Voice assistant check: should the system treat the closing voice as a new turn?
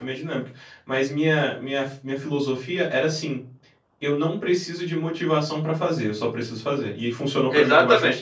Yes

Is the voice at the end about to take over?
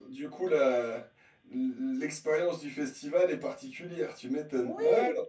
Yes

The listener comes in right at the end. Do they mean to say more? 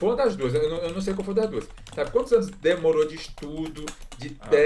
No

